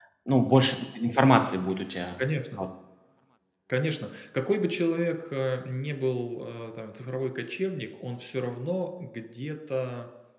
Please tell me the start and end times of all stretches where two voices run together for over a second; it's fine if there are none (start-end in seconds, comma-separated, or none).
none